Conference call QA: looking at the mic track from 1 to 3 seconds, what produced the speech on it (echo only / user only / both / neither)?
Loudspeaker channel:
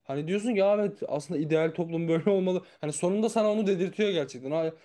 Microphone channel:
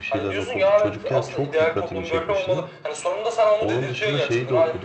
both